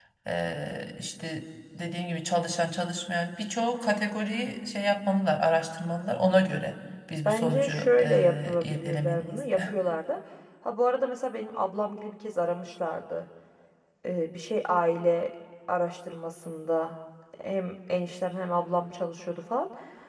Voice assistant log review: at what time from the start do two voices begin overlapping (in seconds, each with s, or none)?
7.2 s